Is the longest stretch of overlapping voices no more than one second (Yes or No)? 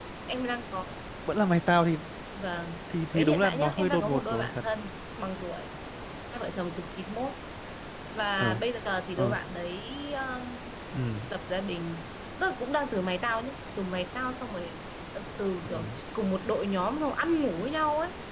No